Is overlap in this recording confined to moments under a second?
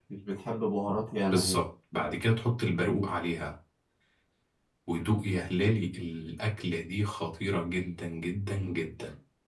Yes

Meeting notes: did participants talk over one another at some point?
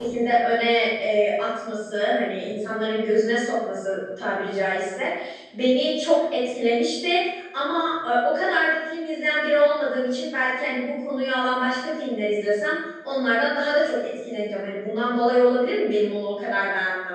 No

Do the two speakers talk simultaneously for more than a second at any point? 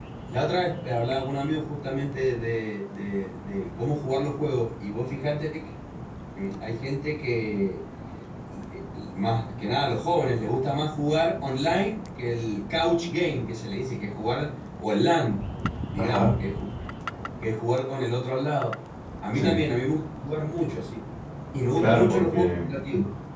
Yes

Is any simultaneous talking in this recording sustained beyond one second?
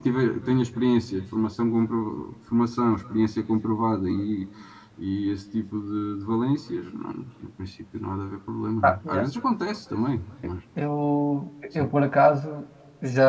No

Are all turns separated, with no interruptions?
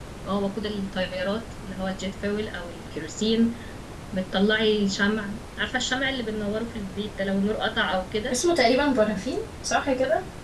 Yes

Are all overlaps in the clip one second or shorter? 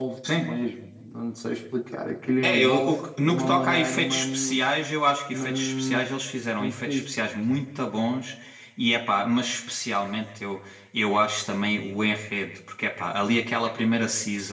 No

